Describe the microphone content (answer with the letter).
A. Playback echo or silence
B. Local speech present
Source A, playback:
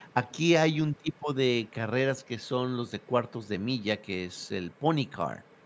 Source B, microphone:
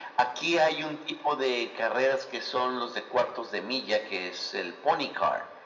A